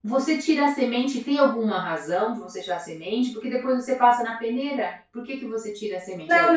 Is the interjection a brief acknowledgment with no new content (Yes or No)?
No